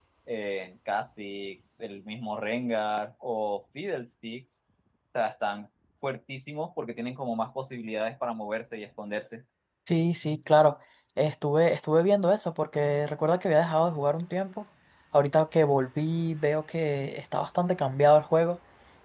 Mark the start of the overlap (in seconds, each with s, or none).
none